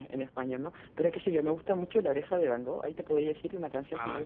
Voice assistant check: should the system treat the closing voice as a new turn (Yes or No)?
No